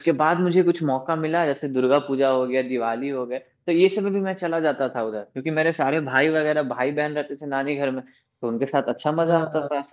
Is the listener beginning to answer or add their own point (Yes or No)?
No